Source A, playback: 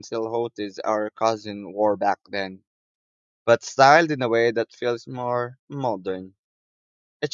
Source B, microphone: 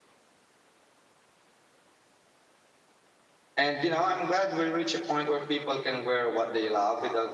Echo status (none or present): none